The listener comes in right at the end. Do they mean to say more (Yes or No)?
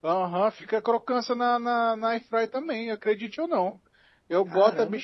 No